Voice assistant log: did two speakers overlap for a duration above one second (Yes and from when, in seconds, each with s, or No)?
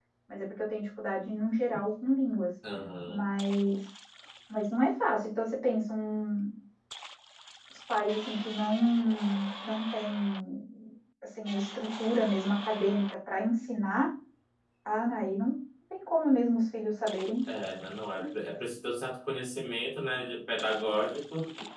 No